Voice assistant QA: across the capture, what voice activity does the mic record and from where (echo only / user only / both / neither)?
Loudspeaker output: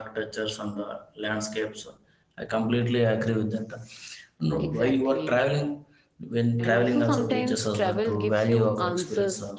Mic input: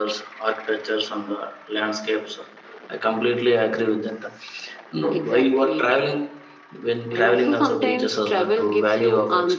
echo only